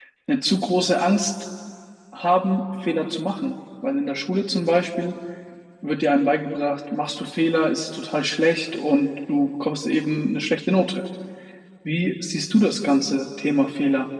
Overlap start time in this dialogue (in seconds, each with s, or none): none